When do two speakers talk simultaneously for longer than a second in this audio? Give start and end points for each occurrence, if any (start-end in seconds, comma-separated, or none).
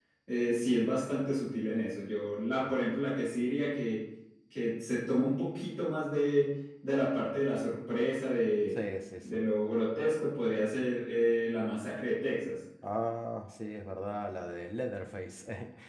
none